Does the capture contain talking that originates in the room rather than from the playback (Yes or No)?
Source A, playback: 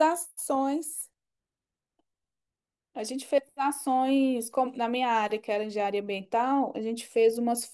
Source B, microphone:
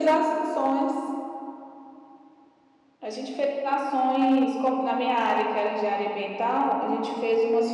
No